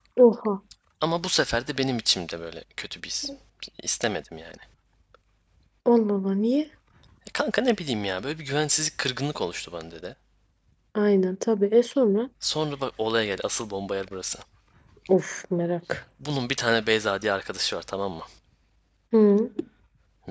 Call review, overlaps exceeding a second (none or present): none